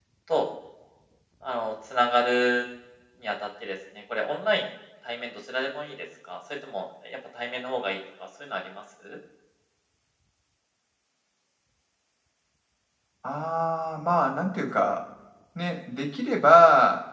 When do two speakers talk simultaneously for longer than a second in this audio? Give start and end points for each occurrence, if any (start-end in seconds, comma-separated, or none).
none